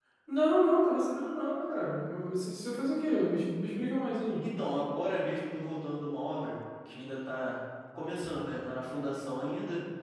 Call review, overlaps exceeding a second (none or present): none